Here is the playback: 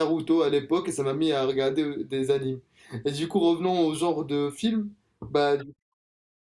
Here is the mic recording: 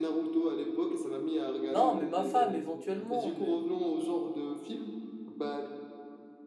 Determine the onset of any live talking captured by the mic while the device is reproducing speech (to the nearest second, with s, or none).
2 s